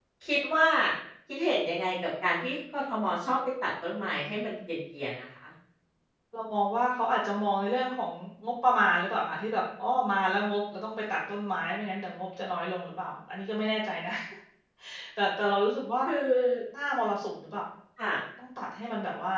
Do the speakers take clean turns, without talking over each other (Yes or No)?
Yes